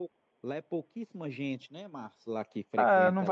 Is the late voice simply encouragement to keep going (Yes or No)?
No